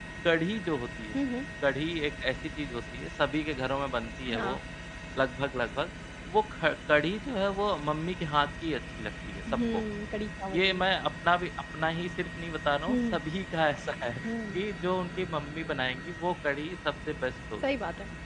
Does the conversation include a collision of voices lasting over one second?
No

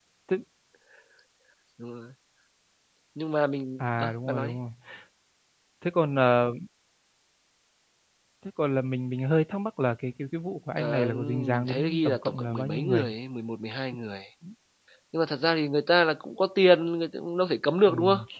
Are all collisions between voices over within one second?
No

